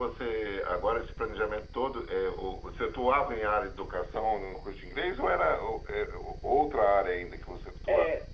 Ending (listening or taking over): taking over